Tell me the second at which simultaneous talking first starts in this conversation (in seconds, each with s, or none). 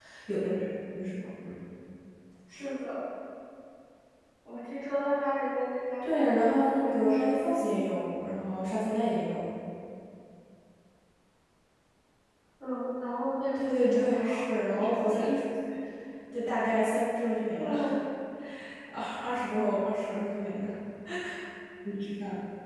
6.0 s